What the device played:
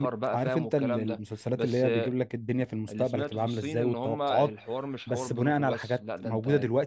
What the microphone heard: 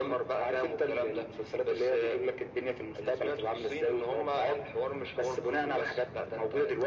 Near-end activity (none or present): none